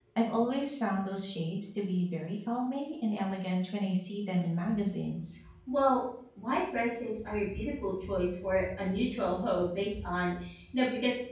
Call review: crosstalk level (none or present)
none